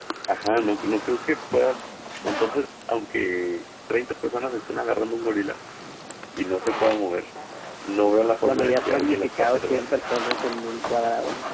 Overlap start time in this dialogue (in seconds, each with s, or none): 8.4 s